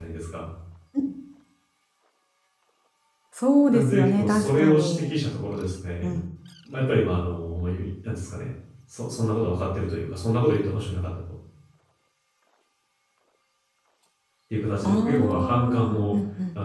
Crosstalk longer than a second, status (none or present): present